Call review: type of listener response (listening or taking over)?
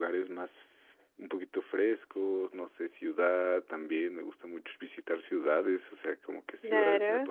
listening